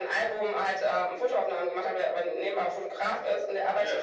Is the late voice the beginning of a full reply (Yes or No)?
No